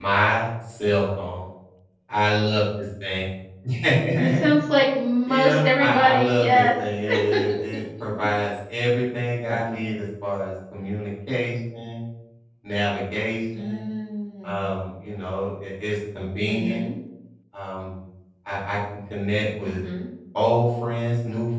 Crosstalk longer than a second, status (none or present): present